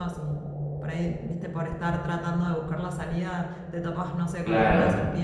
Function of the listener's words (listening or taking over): listening